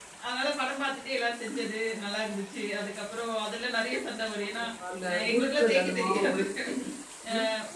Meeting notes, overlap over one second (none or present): present